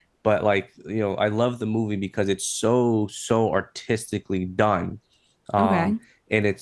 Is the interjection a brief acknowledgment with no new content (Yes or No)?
Yes